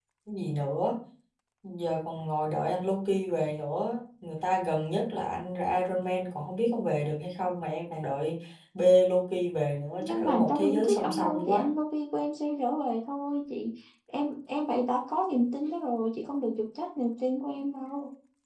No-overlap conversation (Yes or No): No